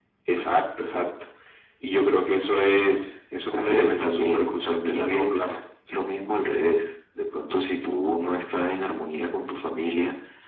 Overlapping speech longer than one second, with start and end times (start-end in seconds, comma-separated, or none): 3.5-5.6